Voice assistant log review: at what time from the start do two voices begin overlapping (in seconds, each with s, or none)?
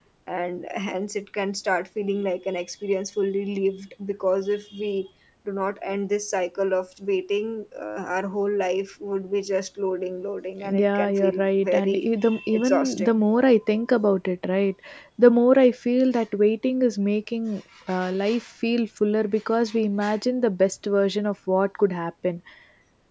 10.6 s